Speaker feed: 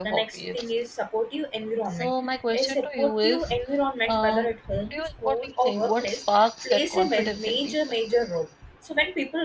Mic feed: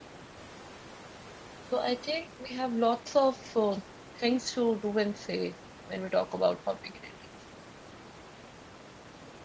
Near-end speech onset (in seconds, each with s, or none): 1.6 s